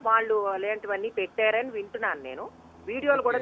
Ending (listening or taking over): taking over